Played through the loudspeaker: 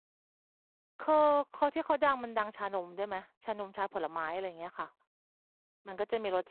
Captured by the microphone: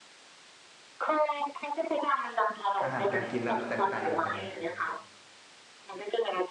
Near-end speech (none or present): present